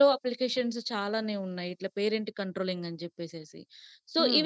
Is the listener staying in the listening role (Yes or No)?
Yes